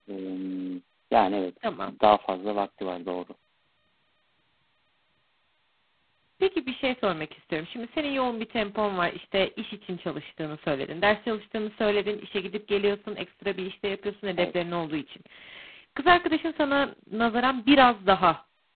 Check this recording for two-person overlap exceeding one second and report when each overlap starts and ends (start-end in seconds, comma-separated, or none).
none